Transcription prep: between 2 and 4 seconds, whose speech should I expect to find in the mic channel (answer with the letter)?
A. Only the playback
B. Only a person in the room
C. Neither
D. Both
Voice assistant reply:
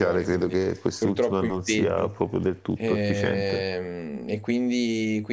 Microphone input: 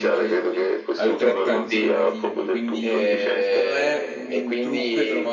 D